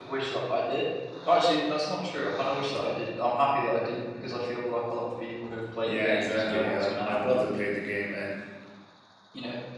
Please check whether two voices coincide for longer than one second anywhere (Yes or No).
Yes